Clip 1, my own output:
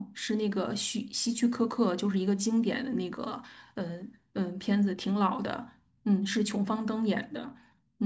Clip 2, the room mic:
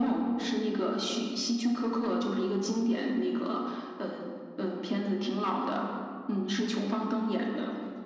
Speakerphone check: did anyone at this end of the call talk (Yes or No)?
No